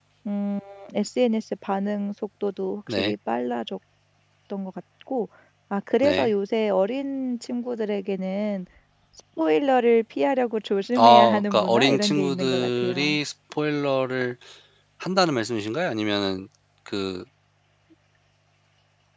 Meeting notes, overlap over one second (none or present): present